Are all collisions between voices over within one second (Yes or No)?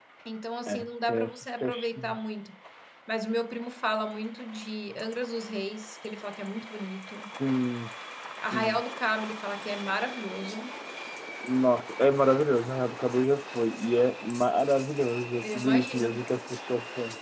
No